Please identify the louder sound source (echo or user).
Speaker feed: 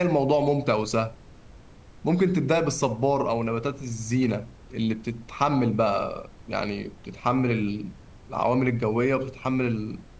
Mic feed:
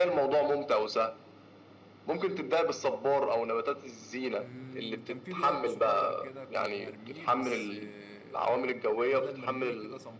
echo